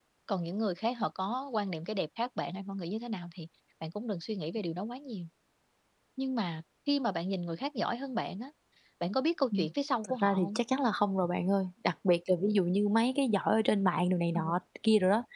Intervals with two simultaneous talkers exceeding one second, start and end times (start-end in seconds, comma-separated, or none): none